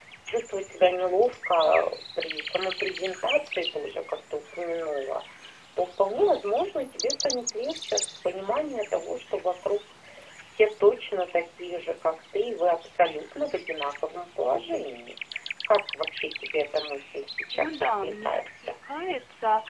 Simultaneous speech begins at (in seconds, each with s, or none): 17.5 s